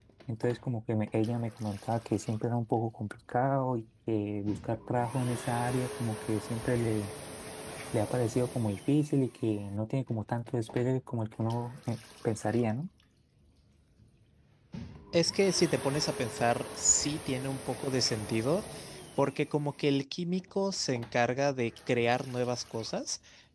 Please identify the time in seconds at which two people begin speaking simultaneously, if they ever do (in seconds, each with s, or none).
none